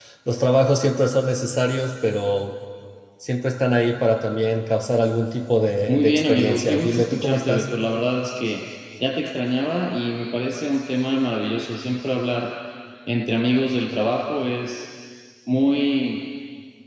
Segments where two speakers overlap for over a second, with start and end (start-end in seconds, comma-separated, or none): 5.9-7.7